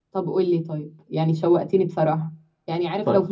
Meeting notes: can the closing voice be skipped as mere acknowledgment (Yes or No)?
Yes